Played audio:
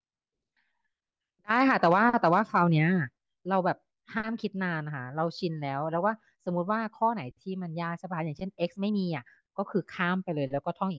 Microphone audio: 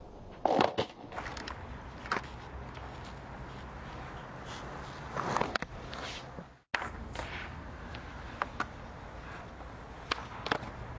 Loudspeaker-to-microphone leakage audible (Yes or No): No